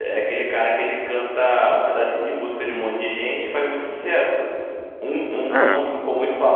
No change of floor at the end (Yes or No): Yes